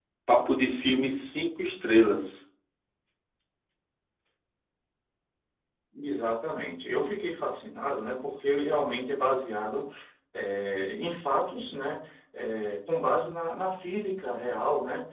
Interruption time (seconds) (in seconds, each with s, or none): none